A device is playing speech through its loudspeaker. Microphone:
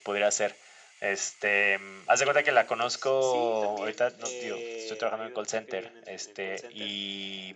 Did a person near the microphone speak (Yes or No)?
Yes